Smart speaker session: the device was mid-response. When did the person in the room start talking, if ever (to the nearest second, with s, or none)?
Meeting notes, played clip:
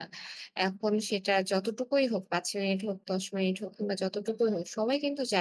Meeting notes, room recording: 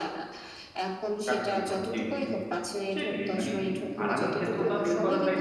1 s